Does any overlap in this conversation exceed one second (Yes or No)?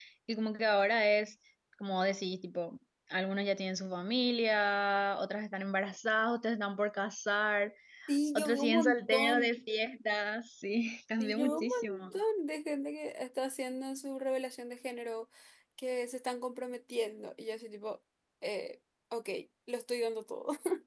Yes